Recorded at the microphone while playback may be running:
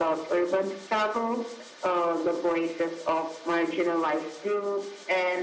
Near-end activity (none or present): none